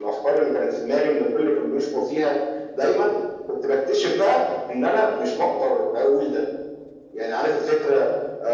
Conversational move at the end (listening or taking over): listening